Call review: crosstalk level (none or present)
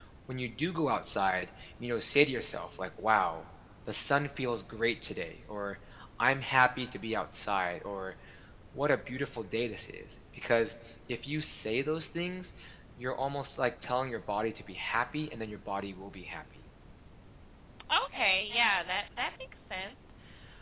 none